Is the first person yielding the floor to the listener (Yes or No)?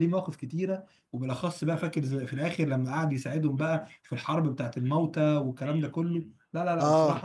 Yes